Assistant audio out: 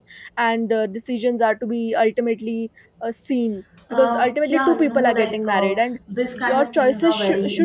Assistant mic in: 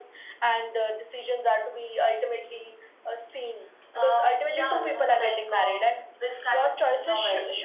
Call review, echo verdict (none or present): present